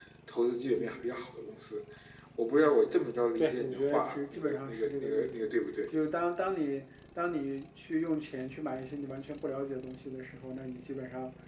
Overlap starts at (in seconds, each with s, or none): 3.4 s